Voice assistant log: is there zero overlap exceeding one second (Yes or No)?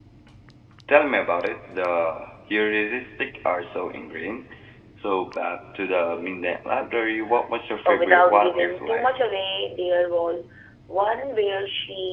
No